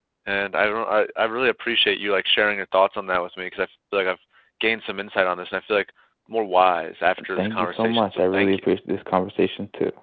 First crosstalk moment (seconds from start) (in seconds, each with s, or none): 7.4 s